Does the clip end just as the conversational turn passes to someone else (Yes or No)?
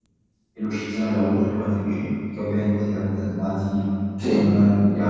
No